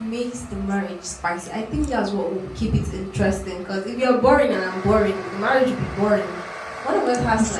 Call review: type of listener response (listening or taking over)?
listening